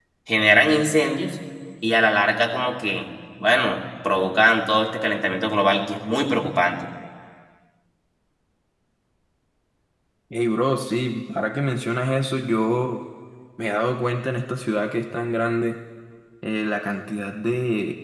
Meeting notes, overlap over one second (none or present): none